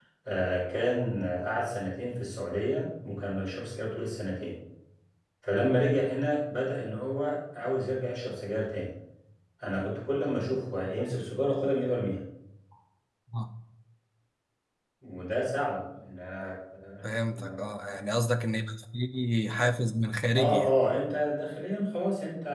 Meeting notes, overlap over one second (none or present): none